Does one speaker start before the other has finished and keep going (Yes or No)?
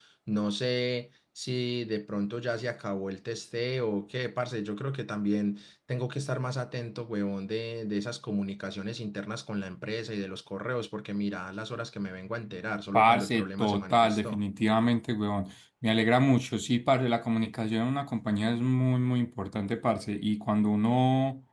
Yes